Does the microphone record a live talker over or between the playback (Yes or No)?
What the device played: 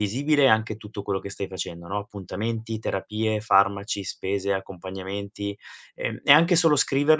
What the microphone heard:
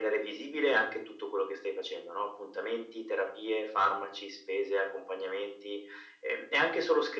No